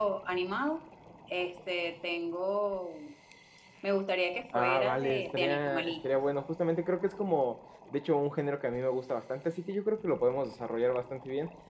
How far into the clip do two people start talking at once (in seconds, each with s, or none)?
4.5 s